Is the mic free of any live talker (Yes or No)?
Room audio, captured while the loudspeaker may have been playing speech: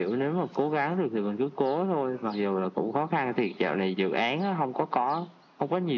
Yes